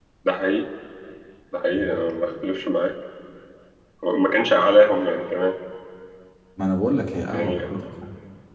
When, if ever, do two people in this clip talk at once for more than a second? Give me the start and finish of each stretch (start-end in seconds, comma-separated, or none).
none